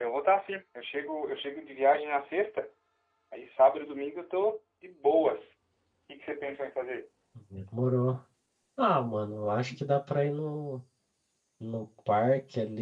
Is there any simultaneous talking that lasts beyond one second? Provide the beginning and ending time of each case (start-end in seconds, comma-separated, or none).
none